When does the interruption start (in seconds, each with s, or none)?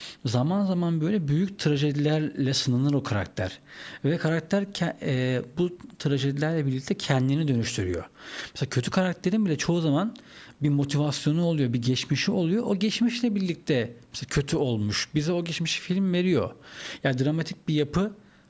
none